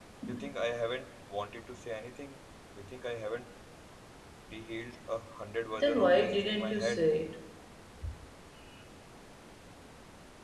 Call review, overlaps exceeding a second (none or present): present